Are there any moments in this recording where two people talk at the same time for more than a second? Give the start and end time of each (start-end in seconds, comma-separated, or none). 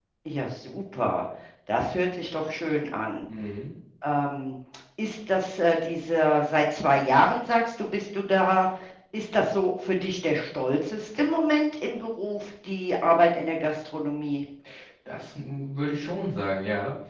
none